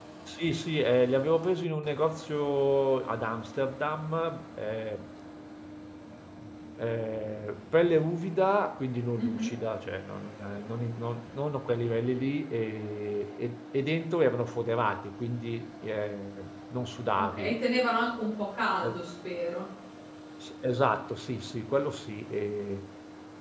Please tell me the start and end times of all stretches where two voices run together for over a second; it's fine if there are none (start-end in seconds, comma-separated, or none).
none